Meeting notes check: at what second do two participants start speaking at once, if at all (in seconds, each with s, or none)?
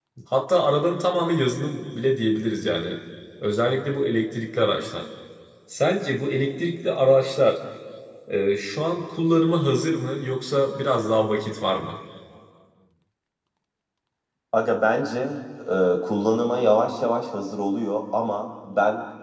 none